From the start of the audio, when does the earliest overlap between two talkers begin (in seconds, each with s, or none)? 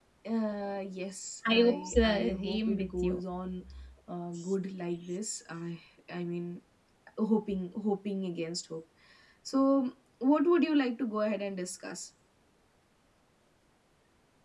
1.4 s